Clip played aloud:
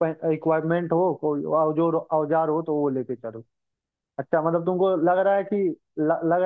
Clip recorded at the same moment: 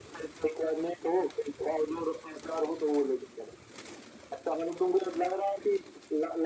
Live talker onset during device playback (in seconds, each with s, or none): none